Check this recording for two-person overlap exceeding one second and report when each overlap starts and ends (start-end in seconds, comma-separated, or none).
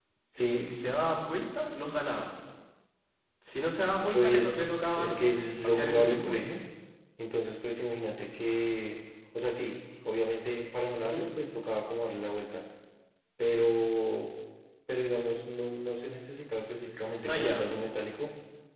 4.1-6.3